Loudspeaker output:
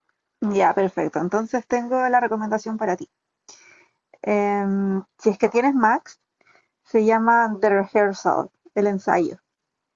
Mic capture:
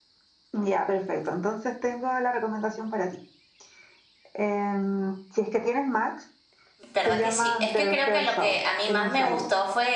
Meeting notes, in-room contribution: present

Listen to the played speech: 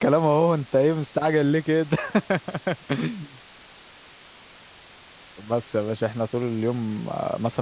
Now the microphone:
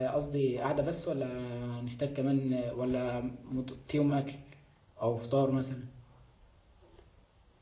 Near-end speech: present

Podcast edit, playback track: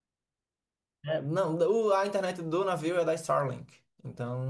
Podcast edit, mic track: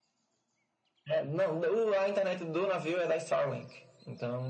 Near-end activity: none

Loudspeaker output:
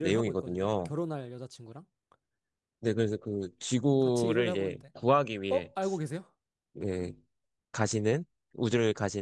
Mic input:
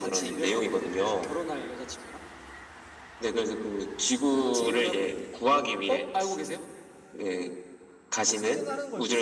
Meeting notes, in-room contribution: present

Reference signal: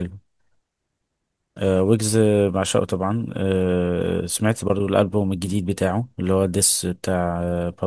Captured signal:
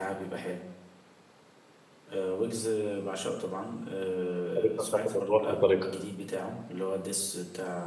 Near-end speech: present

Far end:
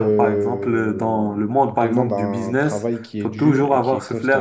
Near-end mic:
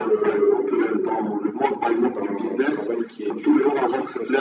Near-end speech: none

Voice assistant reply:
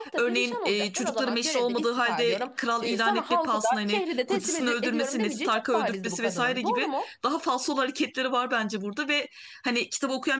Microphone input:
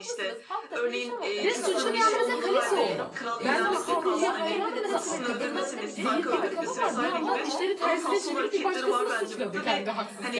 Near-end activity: present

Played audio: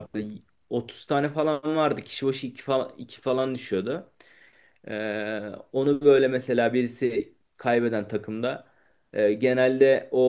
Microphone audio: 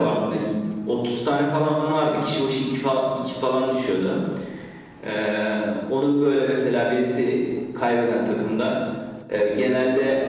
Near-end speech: none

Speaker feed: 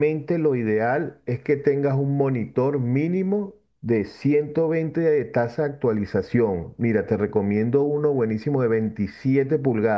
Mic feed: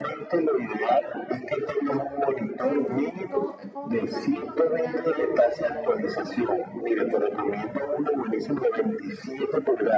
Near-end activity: present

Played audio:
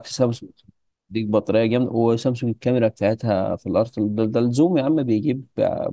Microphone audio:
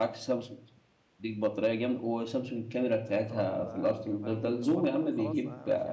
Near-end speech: present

